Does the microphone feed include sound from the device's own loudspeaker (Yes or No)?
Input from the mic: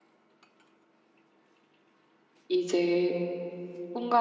No